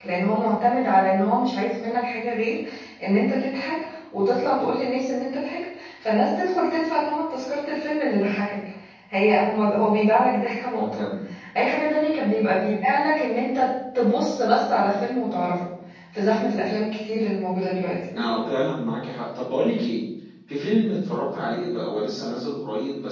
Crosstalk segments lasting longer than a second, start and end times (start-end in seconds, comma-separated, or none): none